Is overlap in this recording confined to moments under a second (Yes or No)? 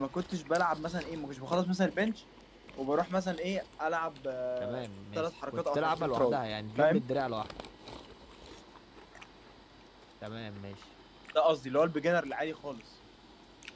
No